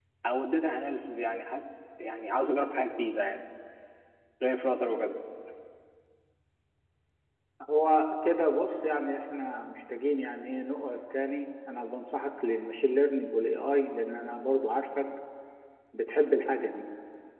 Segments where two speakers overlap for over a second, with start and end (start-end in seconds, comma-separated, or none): none